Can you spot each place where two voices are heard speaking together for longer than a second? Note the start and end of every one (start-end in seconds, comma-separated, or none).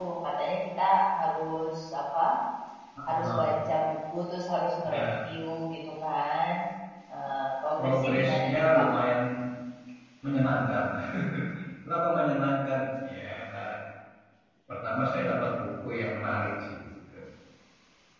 7.8-9.0